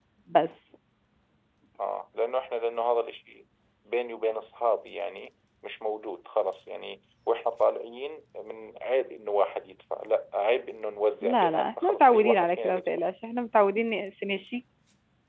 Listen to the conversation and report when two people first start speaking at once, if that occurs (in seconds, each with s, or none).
11.2 s